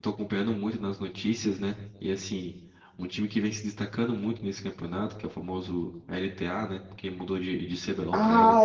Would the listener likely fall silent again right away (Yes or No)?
No